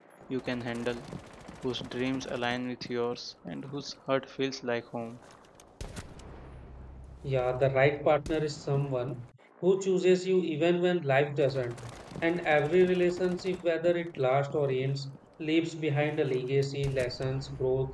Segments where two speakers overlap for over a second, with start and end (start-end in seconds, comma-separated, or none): none